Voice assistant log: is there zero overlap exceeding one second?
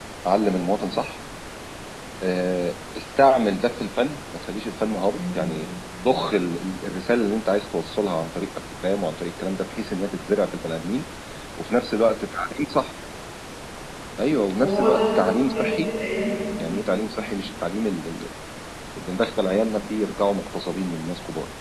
No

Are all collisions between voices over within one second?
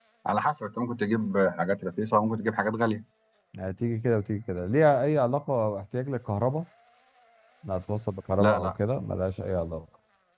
Yes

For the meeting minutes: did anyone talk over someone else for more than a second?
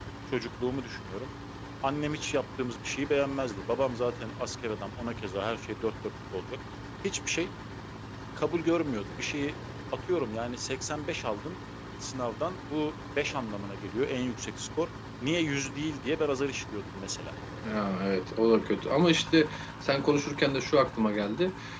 No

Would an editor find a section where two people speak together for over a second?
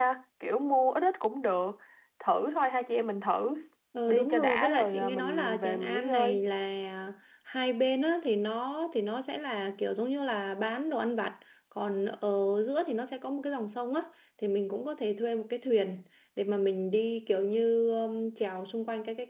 Yes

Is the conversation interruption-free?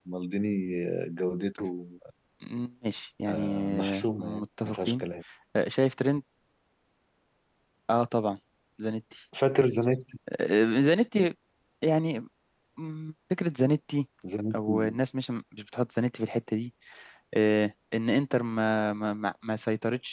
No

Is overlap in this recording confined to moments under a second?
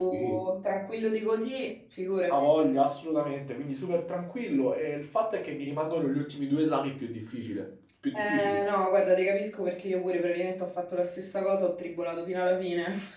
Yes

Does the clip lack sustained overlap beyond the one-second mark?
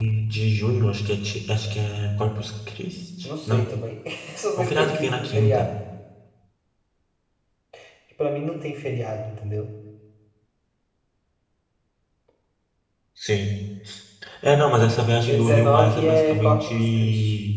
No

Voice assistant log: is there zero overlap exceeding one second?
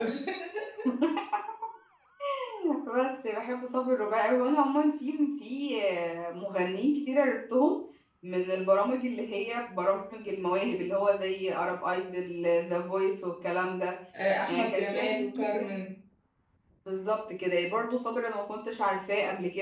No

